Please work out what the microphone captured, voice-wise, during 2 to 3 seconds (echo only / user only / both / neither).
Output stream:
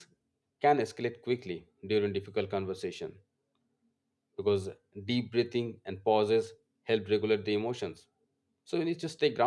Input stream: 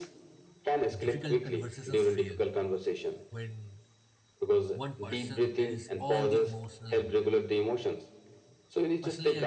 both